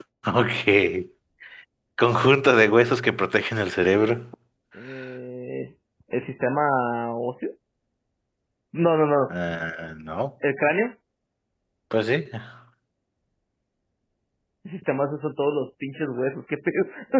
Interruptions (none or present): none